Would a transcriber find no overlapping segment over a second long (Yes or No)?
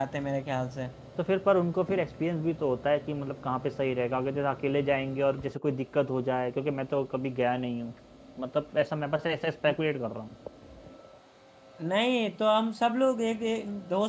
Yes